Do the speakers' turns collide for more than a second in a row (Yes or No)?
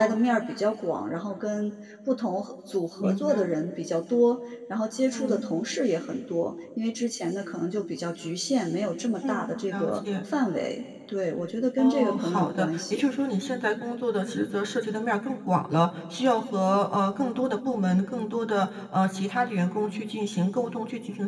Yes